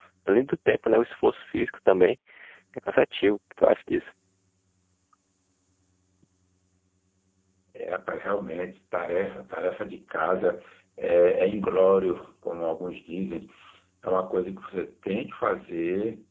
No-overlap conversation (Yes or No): Yes